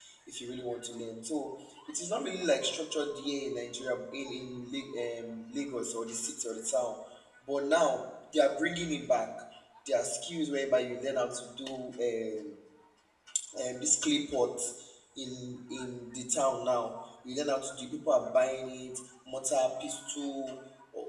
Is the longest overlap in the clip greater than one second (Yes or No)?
No